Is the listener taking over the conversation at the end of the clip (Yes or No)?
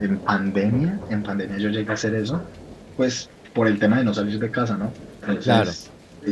No